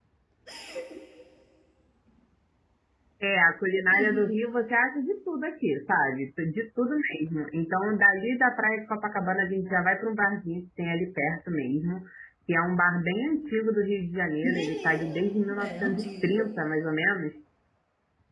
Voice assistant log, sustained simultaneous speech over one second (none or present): present